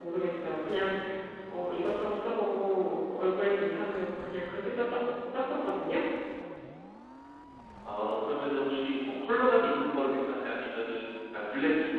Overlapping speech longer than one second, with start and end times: none

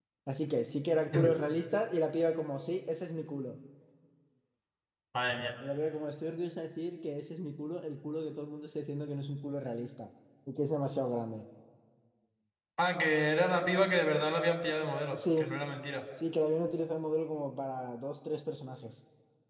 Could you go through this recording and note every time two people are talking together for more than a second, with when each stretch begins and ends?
none

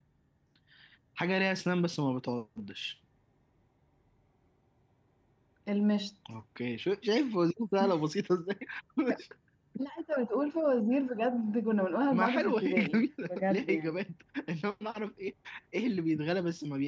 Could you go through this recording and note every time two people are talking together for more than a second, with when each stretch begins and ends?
12.1-13.9

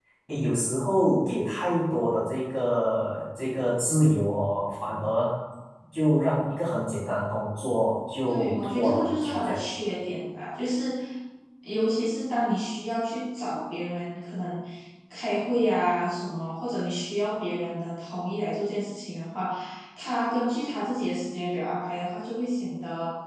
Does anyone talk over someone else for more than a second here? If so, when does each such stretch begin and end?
8.3-9.6

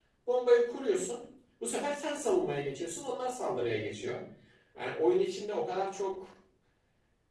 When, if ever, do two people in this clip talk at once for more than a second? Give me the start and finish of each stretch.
none

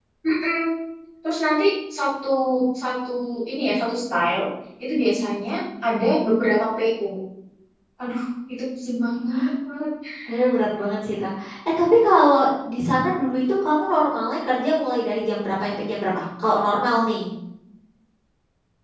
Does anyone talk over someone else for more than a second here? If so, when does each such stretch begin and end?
none

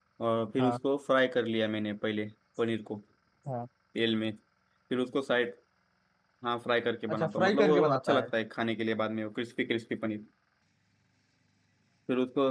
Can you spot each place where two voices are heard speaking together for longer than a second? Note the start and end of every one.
7.1-8.3

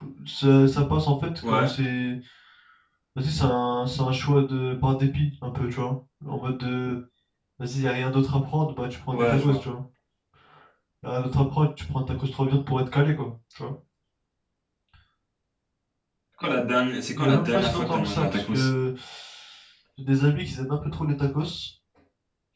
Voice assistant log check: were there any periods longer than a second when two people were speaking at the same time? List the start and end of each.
17.1-18.7

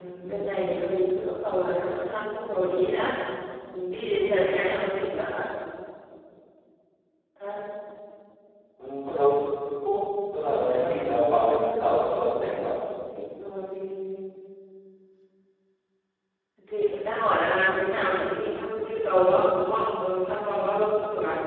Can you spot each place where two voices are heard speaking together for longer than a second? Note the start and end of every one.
none

